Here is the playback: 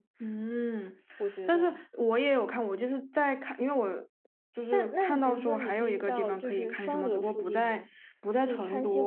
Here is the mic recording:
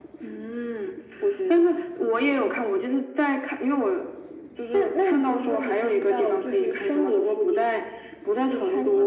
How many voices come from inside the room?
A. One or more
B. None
B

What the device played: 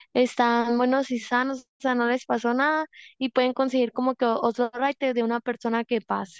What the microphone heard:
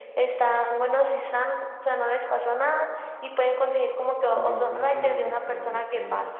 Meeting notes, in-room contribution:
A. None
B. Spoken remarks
B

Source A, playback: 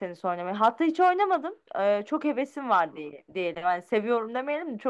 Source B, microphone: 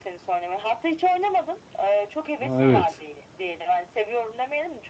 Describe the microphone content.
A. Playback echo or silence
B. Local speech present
B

